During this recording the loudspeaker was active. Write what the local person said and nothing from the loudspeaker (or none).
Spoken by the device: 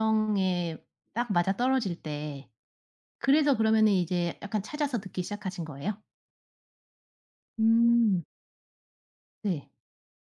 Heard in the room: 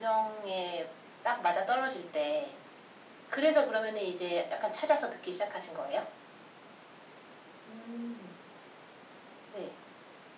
none